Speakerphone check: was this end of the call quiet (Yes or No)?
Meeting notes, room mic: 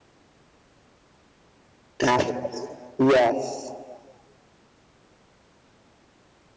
No